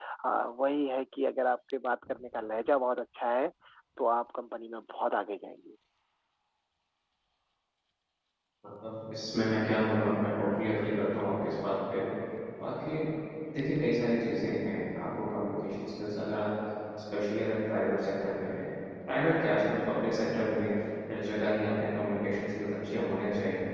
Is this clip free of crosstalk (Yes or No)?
Yes